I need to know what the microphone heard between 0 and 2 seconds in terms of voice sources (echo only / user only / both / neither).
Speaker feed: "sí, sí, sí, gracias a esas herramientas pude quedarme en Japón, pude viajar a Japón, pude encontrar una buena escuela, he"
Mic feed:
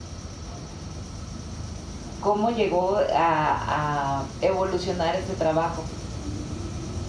neither